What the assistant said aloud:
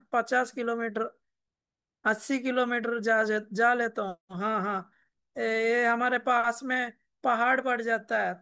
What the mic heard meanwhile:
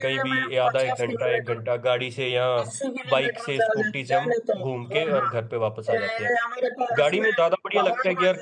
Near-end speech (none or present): present